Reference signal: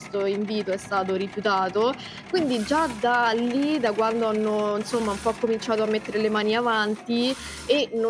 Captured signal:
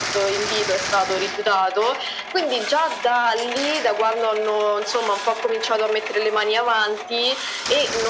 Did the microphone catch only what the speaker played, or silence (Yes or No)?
Yes